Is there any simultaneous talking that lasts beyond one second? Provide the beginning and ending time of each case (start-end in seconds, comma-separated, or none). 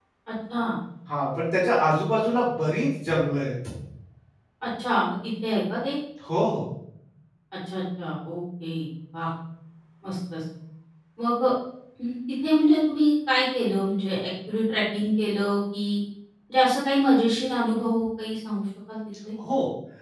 none